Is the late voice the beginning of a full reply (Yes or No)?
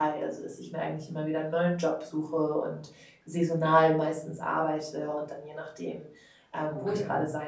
No